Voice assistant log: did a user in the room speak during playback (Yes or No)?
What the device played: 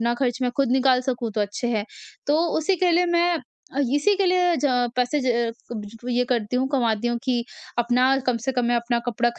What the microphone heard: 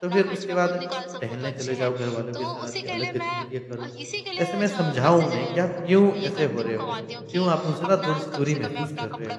Yes